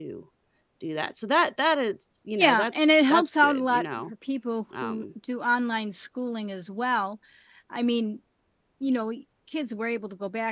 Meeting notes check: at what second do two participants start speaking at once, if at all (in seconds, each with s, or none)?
2.4 s